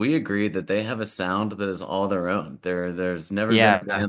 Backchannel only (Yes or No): Yes